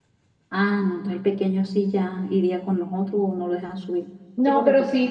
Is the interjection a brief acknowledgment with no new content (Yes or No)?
No